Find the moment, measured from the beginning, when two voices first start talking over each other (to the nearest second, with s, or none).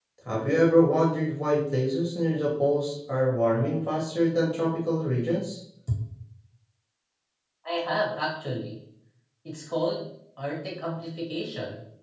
none